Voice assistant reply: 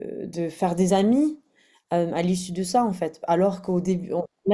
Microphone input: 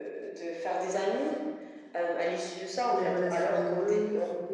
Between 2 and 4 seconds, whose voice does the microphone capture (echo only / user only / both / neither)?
both